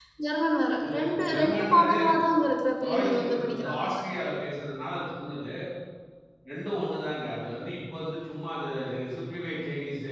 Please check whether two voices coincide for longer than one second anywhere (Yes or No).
Yes